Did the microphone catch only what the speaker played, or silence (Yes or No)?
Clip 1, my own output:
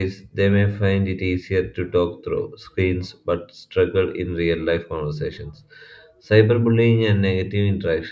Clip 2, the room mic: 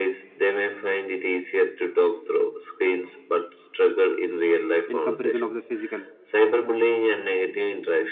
No